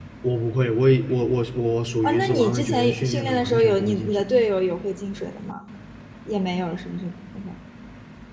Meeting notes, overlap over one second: present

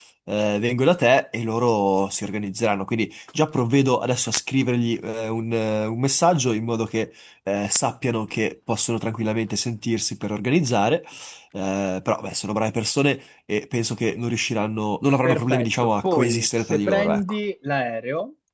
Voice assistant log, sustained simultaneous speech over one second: present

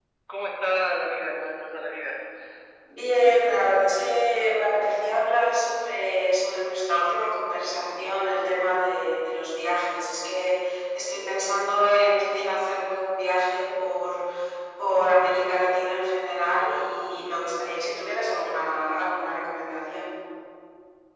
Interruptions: none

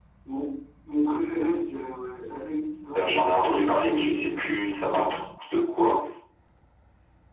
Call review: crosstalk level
present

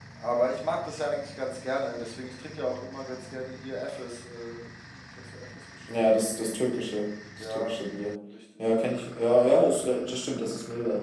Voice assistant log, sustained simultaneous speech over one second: none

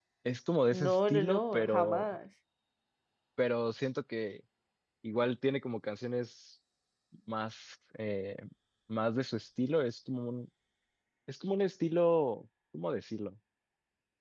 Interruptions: present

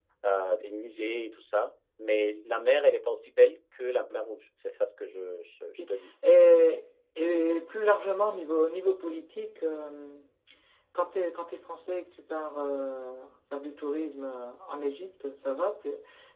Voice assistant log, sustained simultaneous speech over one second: none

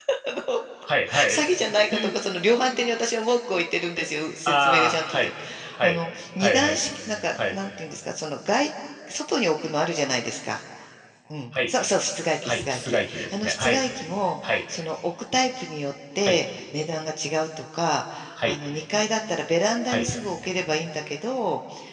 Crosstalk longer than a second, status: present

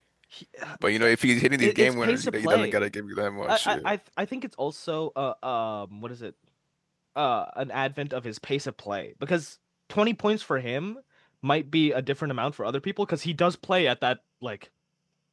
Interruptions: present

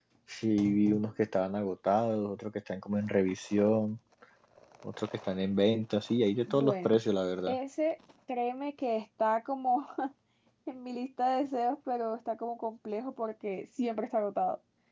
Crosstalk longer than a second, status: none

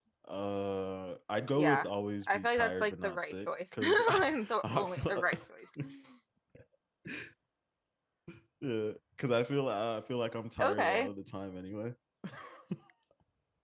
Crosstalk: present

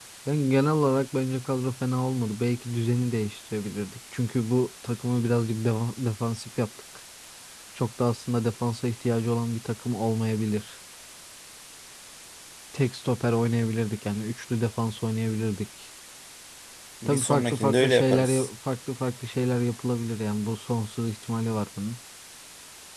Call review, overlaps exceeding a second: present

